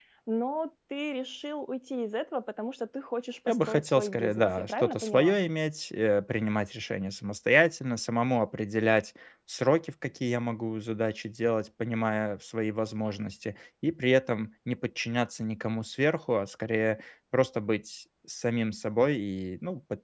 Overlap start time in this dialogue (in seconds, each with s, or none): 3.5 s